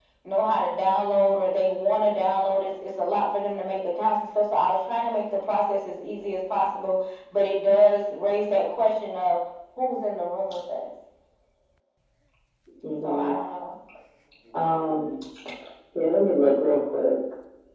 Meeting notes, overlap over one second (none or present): none